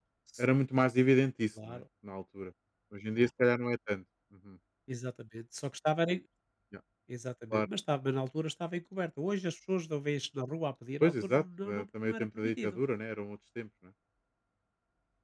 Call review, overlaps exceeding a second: present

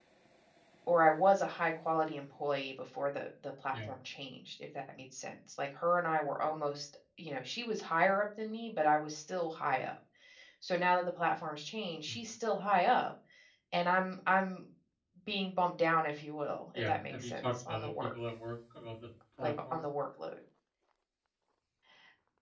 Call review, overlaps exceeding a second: present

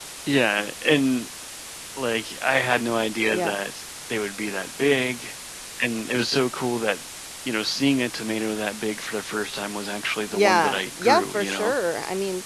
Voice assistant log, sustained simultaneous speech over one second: present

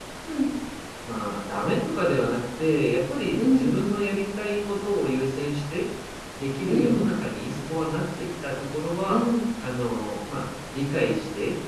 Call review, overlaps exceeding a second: none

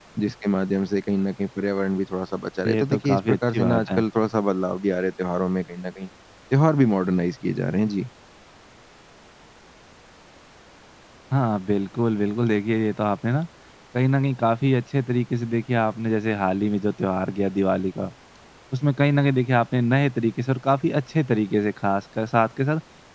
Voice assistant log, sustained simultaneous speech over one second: present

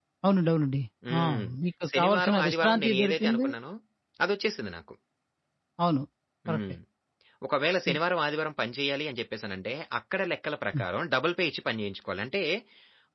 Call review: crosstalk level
present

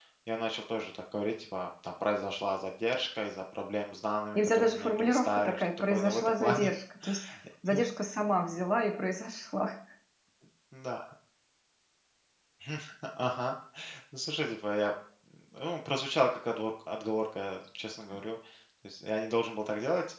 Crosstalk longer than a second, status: present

